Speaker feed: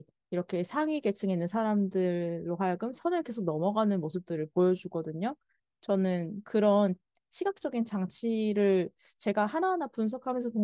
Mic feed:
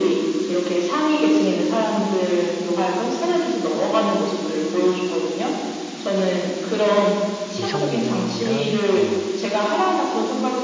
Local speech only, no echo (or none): 이선균이랑 또